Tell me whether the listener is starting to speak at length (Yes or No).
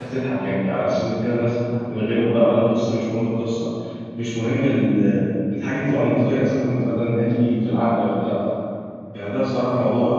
No